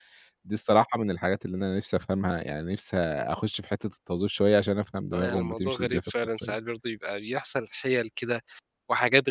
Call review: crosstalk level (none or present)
present